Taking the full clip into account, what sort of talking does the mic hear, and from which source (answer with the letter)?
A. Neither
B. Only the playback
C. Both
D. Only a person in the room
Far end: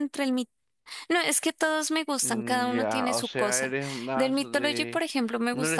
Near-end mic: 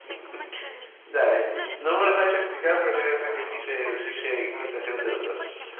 C